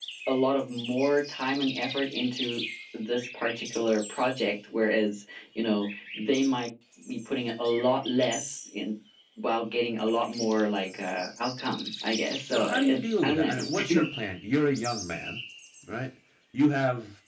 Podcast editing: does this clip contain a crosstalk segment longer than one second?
Yes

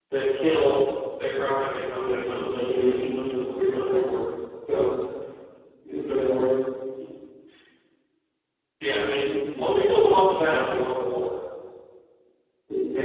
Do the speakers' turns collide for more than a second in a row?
Yes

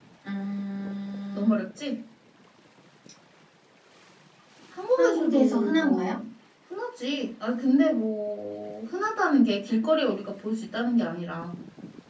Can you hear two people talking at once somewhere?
Yes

